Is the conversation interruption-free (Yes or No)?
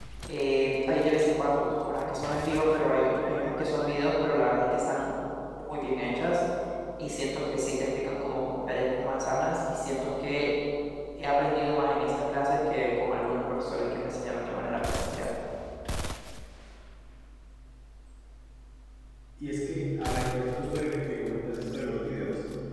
Yes